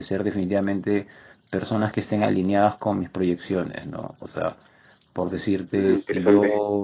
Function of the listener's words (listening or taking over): listening